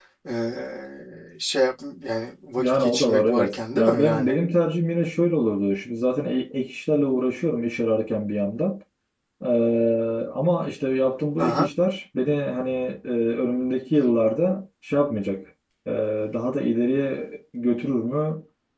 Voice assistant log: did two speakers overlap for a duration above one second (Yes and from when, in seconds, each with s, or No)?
Yes, from 2.6 s